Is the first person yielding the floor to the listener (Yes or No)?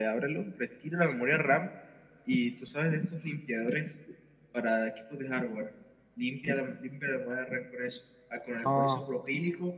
No